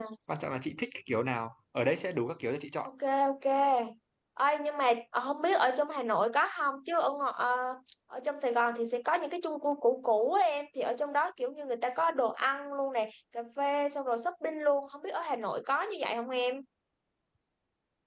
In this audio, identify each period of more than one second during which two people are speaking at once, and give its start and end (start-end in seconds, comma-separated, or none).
none